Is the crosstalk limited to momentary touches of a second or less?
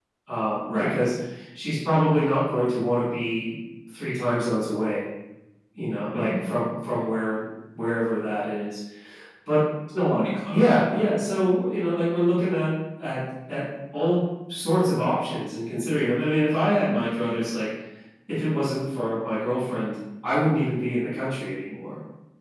Yes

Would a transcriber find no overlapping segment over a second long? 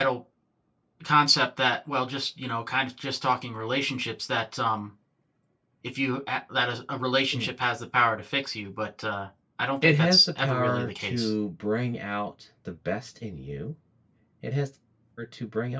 No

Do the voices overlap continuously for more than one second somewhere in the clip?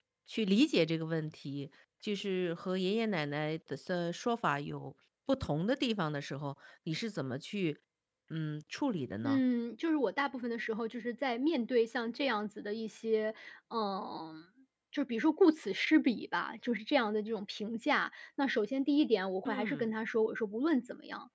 No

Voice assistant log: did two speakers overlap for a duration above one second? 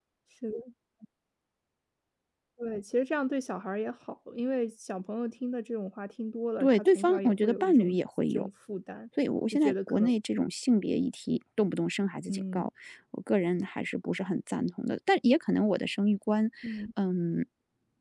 Yes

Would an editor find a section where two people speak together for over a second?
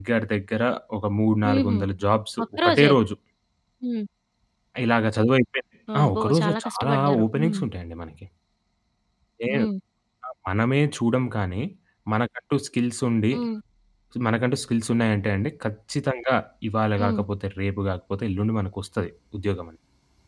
Yes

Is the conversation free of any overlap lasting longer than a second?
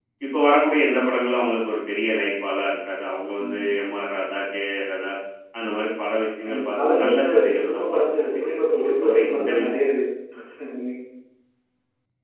No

